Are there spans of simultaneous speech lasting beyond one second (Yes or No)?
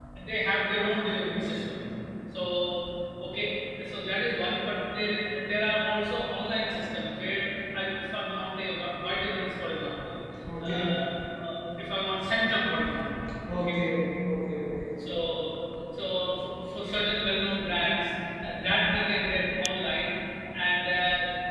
No